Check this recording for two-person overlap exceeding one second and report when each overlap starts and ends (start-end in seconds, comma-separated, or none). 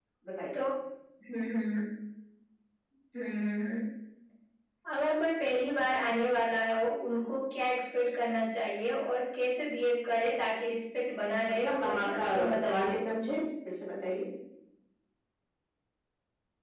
11.6-13.0